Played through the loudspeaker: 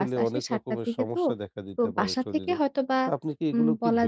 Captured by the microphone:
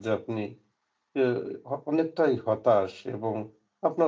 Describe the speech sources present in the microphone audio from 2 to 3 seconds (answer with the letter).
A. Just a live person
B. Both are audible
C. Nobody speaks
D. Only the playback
A